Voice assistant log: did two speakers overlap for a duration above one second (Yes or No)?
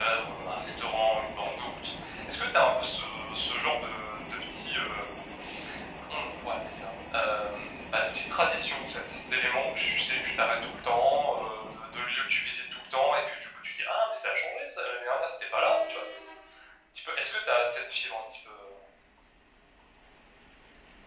No